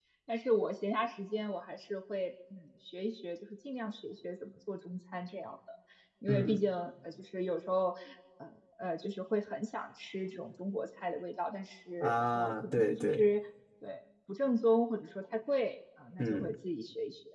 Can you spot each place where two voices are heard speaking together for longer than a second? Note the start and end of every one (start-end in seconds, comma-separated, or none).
12.0-13.2